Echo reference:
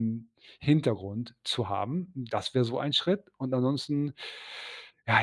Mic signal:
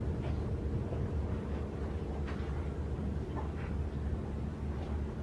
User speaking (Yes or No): No